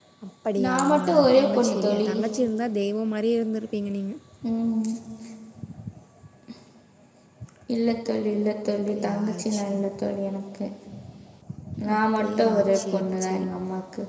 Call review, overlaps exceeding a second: present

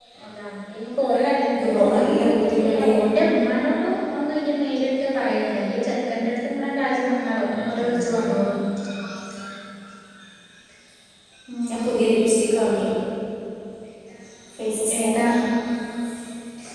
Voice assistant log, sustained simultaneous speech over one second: present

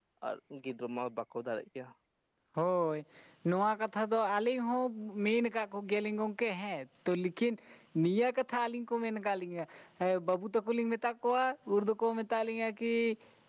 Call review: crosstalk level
none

